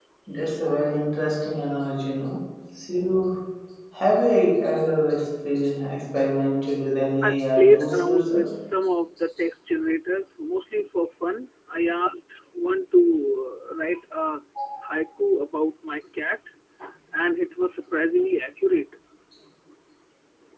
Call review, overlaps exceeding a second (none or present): present